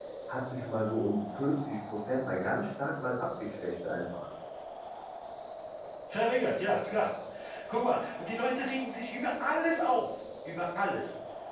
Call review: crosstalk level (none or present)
none